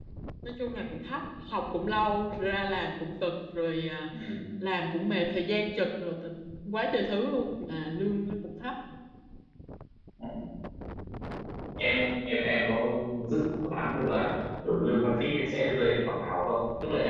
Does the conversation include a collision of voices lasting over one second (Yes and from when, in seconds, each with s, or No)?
No